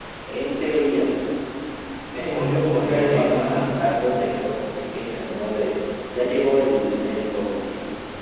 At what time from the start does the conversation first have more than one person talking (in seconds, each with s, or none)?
2.3 s